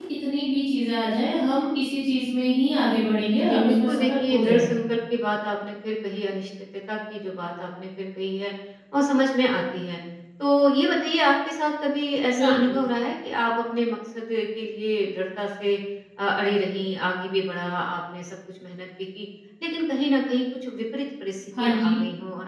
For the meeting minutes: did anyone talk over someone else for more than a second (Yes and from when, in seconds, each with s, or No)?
Yes, from 3.5 s